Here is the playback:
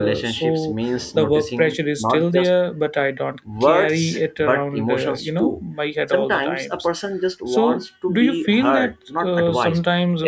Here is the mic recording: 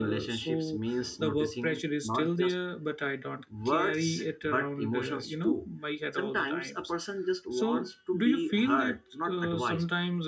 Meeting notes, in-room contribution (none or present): none